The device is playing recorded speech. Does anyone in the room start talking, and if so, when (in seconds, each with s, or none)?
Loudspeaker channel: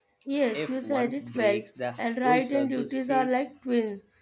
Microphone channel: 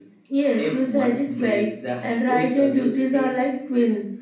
none